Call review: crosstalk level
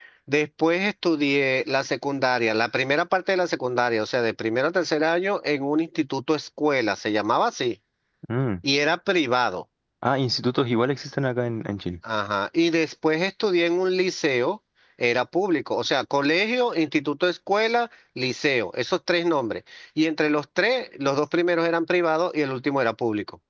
none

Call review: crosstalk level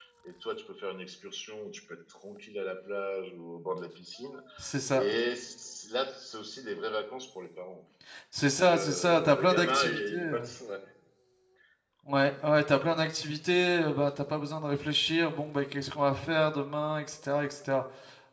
present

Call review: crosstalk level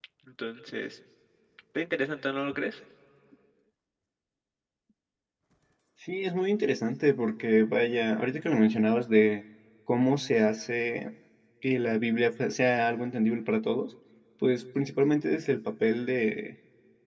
none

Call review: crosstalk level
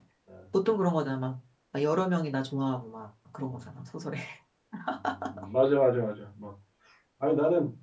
none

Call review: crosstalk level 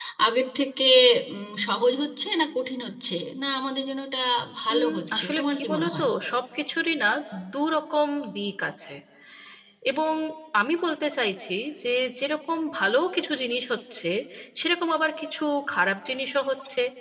present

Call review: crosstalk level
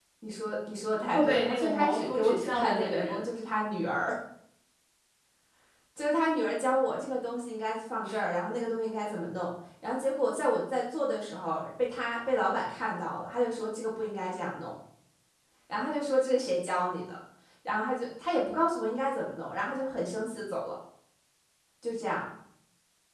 present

